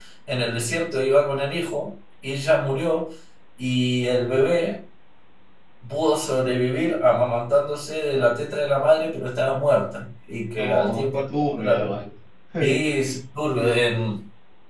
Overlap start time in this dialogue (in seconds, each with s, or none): 10.5 s